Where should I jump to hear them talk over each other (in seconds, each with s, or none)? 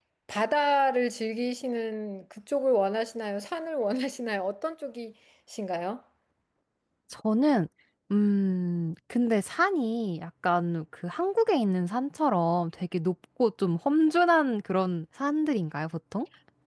none